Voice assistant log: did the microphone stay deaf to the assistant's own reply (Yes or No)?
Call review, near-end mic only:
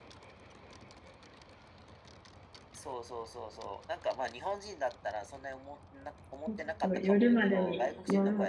No